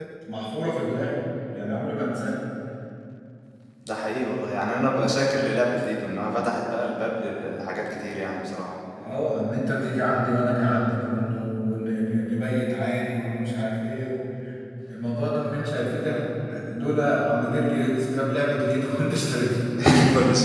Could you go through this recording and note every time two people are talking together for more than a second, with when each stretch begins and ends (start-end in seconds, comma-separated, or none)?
none